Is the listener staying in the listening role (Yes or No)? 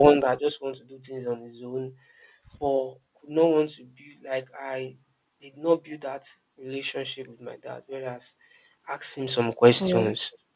Yes